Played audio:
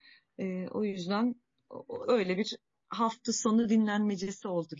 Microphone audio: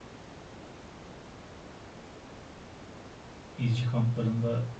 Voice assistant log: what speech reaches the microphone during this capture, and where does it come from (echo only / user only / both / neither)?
user only